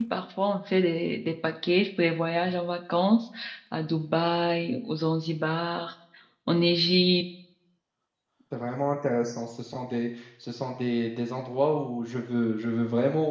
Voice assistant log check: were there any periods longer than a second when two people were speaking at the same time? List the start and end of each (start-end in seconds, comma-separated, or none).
none